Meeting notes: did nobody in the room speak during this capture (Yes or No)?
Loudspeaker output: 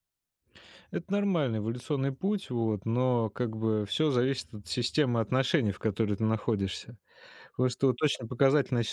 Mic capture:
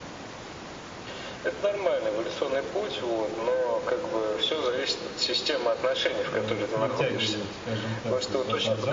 No